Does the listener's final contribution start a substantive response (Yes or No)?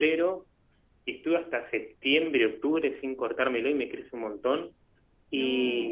No